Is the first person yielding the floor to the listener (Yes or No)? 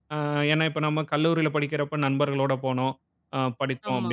No